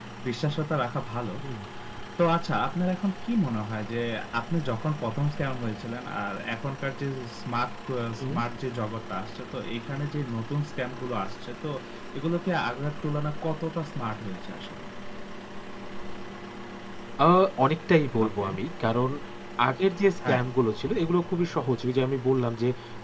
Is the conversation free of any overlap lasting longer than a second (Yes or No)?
Yes